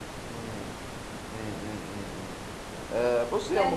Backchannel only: Yes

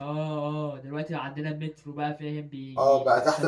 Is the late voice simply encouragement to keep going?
No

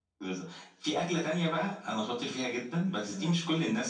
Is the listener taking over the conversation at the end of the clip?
No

